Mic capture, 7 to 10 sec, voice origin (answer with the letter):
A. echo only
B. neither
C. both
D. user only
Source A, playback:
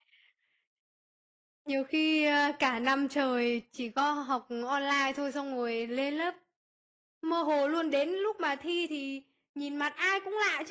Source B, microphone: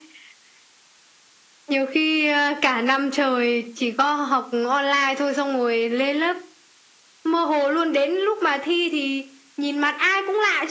A